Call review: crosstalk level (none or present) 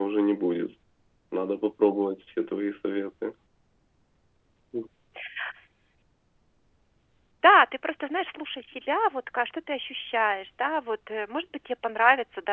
none